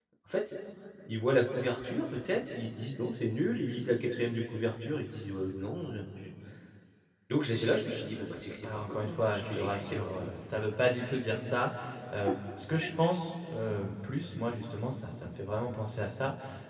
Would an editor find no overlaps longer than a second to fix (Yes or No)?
No